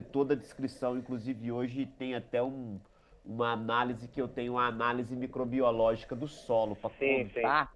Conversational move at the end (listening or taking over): listening